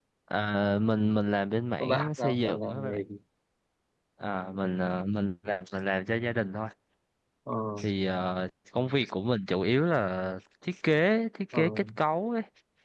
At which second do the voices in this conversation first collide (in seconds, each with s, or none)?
1.8 s